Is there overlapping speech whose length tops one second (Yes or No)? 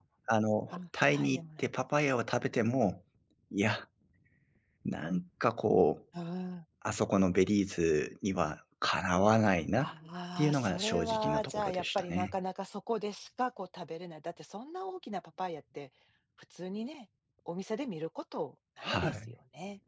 Yes